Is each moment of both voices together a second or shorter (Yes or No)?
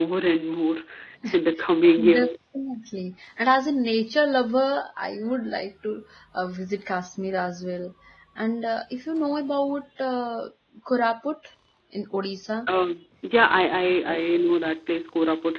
Yes